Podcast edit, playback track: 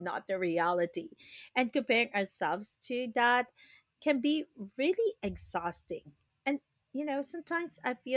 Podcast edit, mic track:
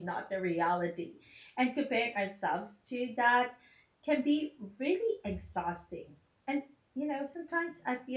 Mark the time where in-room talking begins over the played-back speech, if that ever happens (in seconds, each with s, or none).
none